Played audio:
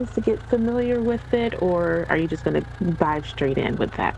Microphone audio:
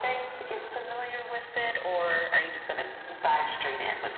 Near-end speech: none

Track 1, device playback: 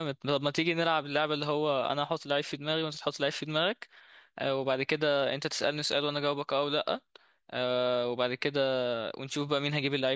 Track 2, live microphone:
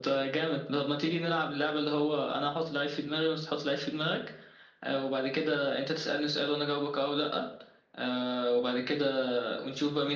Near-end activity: none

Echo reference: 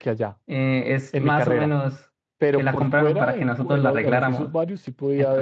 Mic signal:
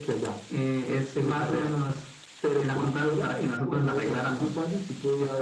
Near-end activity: none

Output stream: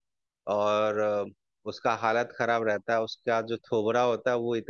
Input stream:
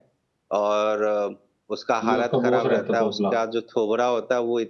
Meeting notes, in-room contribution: present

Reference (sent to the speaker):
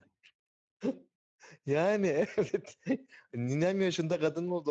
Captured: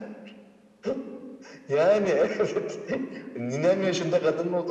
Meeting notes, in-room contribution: none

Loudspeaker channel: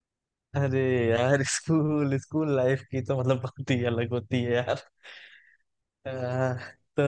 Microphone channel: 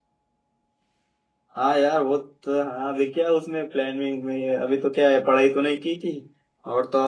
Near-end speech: present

